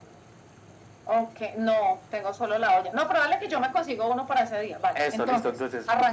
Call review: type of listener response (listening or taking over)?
taking over